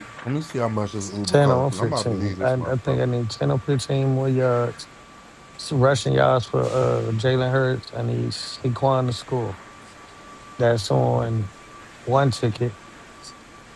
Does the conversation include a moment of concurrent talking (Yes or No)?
Yes